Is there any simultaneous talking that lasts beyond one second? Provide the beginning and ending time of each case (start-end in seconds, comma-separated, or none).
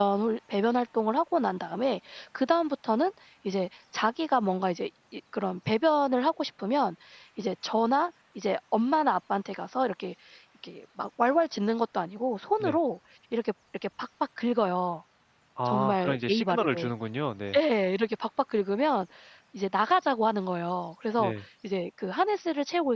15.7-16.9